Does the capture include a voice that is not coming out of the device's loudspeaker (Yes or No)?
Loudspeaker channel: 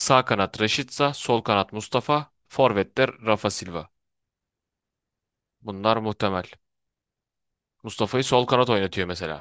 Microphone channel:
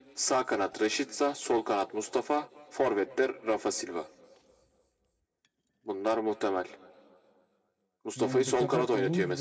Yes